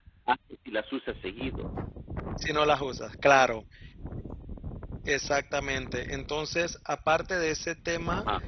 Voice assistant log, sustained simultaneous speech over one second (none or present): none